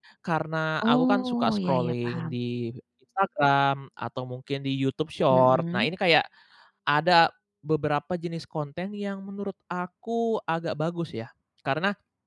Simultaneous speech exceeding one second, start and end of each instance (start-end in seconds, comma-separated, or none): 0.8-2.4